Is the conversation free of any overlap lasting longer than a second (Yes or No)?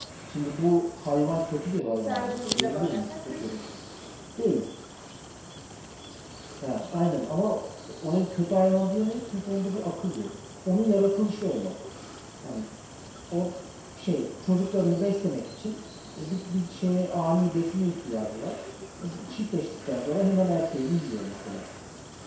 No